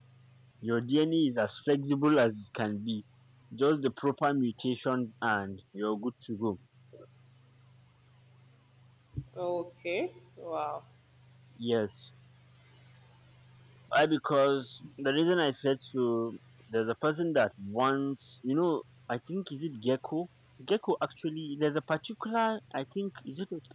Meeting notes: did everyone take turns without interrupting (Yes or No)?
Yes